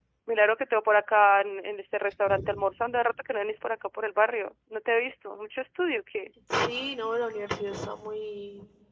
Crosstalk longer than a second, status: none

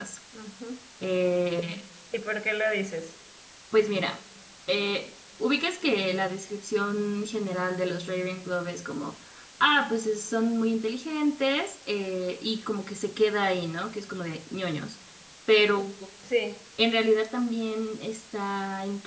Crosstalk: none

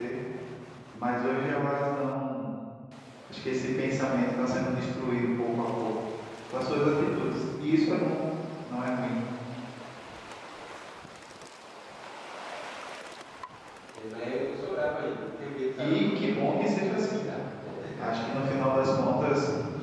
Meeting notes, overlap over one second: present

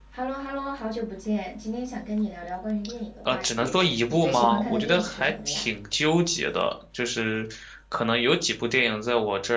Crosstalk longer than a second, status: present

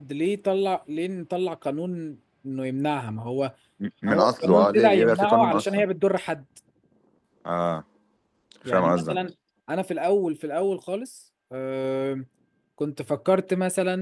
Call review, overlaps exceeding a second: present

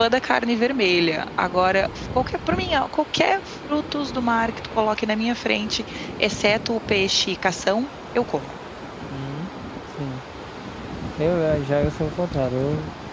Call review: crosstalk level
none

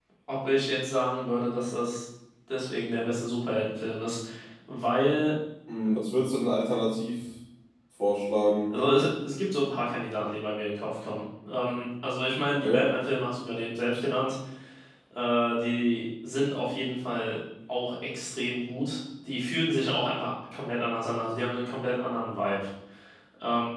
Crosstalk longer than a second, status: none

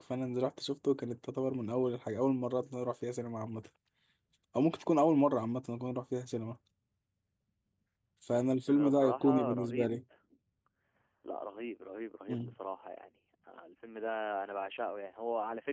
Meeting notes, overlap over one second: present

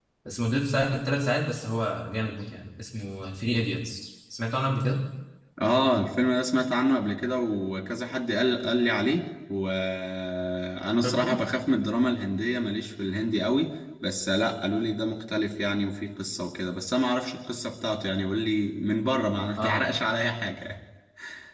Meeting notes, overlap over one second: none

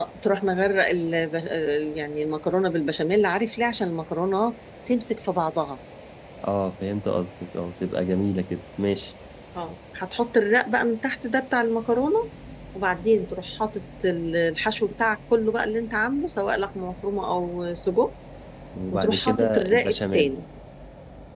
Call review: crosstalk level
present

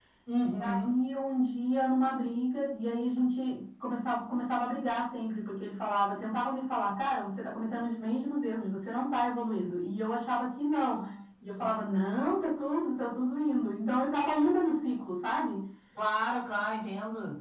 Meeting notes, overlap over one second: none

